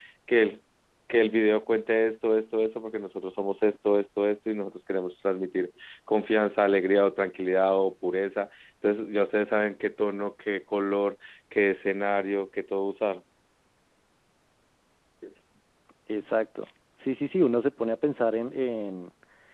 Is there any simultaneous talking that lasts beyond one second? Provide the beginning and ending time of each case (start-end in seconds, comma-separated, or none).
none